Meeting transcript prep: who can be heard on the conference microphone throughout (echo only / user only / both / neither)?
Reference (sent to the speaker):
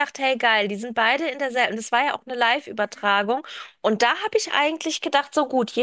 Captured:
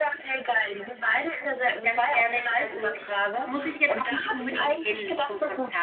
both